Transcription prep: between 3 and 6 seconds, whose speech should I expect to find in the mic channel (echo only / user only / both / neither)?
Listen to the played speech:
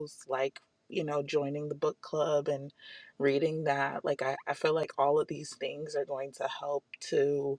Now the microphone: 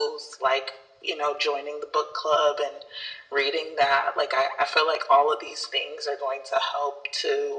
echo only